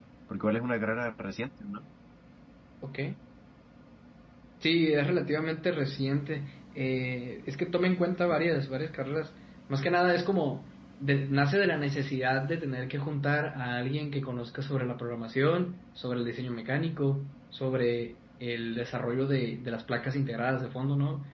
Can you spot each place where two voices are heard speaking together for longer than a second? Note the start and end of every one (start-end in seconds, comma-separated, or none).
none